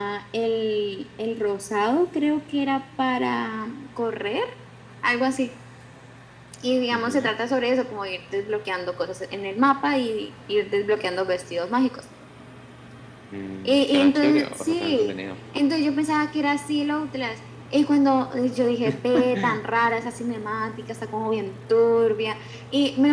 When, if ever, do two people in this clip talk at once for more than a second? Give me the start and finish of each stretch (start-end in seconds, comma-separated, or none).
13.7-15.2